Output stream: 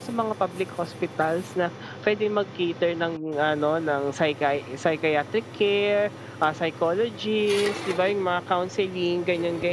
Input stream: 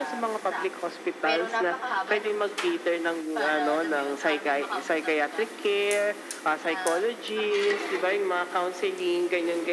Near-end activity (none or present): present